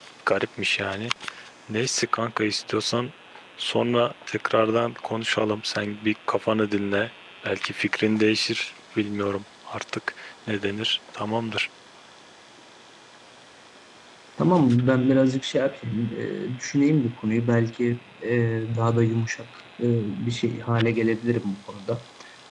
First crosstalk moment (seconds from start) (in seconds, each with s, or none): none